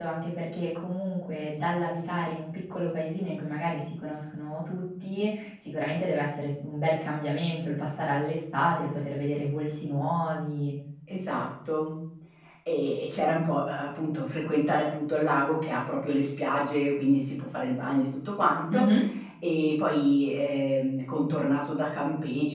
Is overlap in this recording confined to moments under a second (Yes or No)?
Yes